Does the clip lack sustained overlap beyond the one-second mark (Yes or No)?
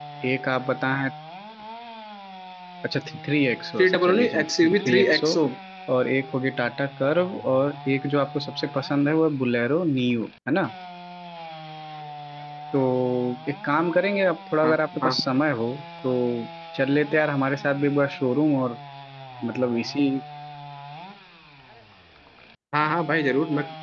No